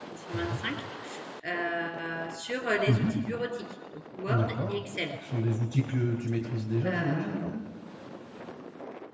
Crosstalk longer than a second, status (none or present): none